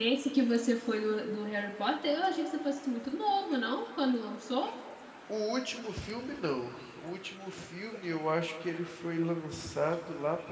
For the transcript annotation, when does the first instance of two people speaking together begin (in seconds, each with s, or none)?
none